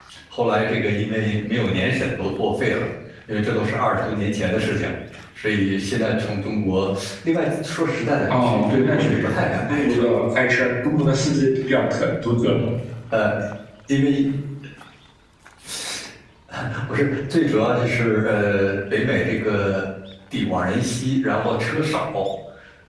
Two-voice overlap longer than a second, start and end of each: 8.4-10.1

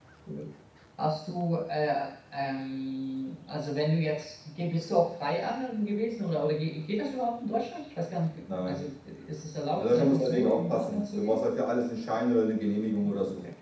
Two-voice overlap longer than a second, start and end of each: 9.8-11.4

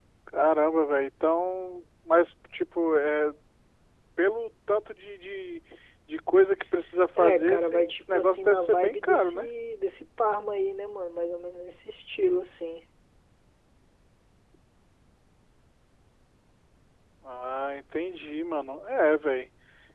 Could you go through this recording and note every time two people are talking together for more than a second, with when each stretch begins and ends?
7.2-9.5

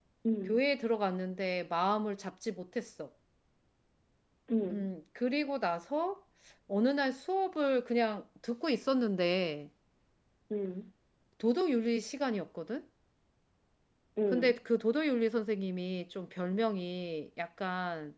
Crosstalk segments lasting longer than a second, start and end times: none

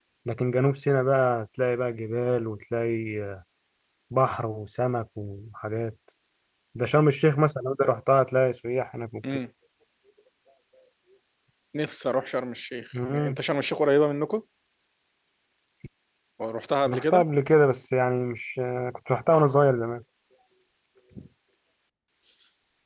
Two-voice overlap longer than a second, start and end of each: none

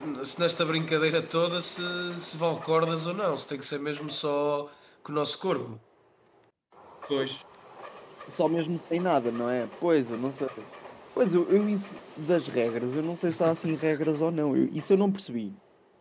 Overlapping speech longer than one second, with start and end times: none

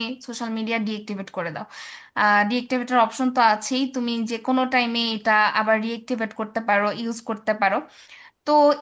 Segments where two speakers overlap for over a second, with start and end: none

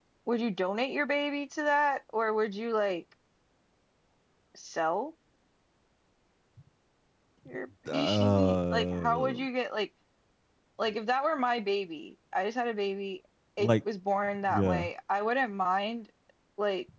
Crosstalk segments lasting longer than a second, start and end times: 7.9-9.4

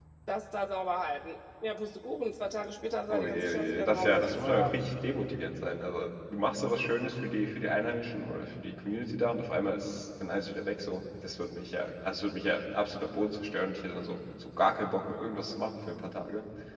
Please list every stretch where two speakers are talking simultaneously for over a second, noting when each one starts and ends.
3.1-4.7

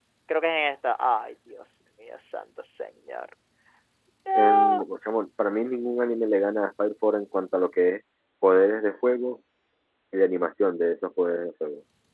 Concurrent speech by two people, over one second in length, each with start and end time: none

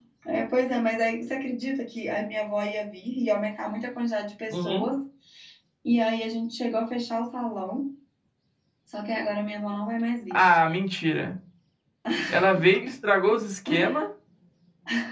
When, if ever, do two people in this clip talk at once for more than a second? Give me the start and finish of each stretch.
none

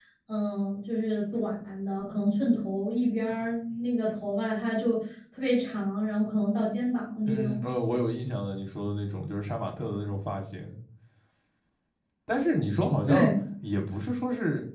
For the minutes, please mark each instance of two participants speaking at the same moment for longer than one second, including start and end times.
none

